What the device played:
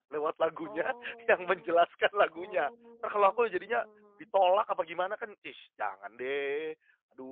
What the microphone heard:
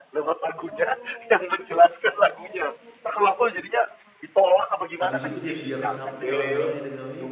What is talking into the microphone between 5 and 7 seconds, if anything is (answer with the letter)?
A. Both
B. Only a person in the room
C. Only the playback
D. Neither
A